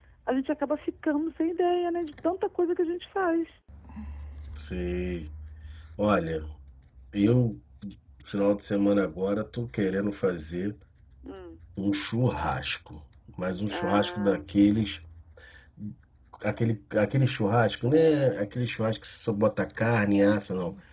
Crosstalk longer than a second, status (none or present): present